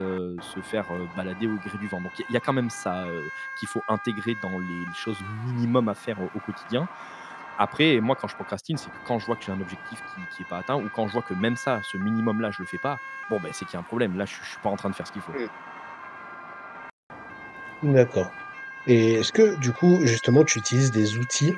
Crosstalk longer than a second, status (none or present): none